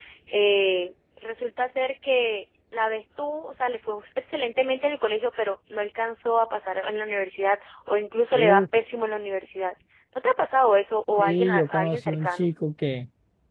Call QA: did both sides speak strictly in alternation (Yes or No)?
No